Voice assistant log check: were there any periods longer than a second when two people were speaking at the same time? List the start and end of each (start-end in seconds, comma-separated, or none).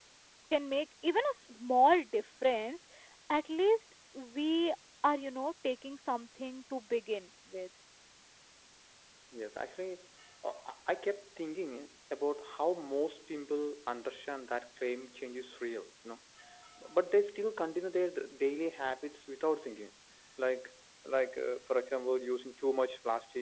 none